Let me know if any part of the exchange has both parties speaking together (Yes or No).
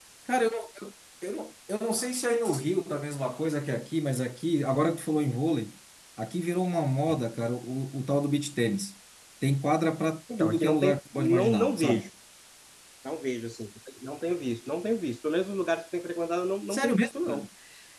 Yes